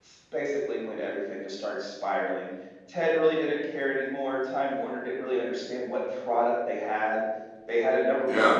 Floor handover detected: No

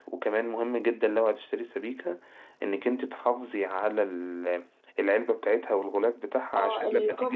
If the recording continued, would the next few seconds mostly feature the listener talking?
Yes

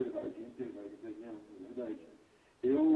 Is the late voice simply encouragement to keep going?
Yes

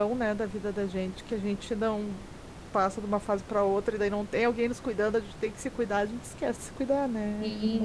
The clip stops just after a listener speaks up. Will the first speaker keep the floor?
No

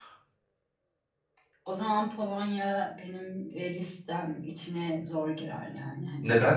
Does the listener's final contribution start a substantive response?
Yes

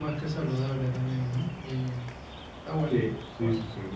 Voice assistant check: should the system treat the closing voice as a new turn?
Yes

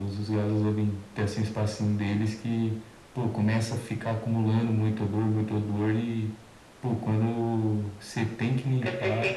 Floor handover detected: Yes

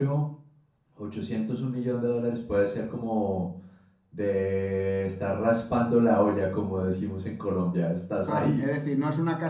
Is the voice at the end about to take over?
Yes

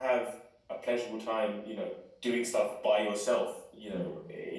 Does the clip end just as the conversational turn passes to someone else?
No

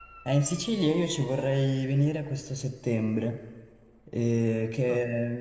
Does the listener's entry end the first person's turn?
No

